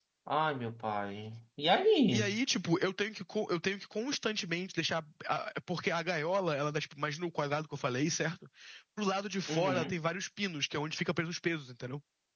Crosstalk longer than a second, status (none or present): none